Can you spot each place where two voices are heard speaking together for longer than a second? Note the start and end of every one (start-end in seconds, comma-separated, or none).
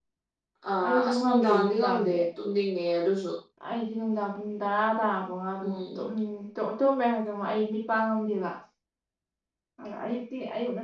0.8-2.2